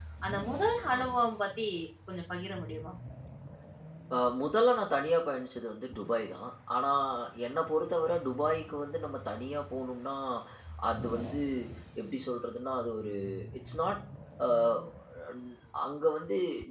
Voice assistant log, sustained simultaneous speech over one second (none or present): none